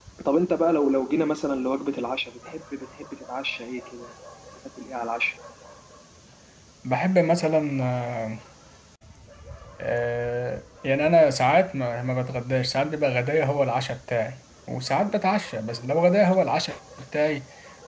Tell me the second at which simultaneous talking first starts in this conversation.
none

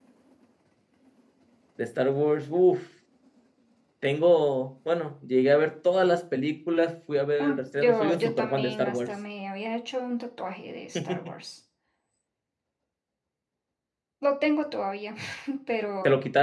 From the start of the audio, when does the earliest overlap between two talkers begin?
7.4 s

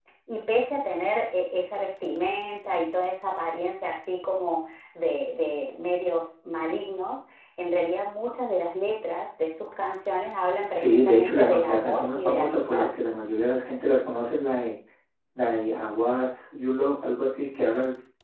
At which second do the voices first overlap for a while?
10.8 s

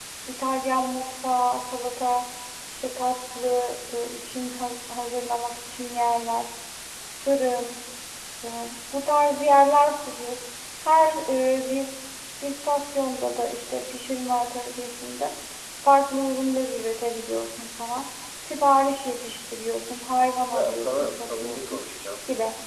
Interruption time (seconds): 20.5 s

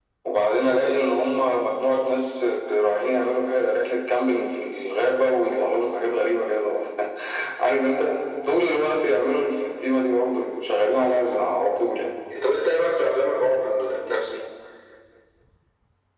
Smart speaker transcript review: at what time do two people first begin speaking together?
none

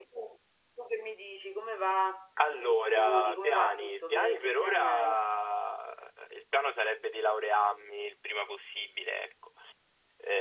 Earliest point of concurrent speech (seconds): 2.4 s

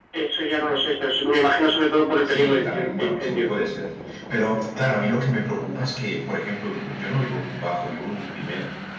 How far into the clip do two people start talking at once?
2.2 s

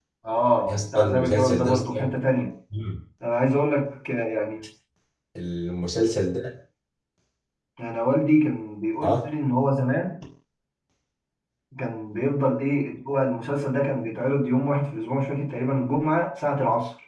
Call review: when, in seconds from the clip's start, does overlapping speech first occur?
0.7 s

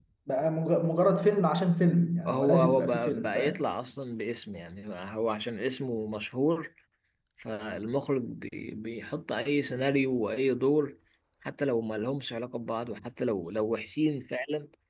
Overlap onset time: 2.2 s

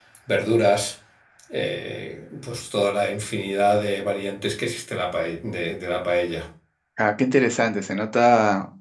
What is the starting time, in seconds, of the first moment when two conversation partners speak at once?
none

